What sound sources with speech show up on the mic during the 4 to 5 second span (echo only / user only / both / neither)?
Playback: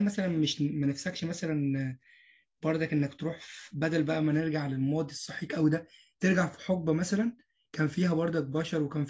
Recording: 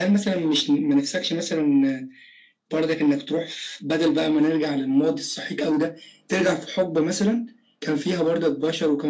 echo only